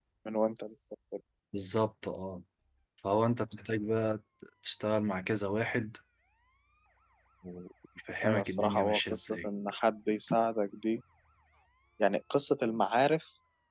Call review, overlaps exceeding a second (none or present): present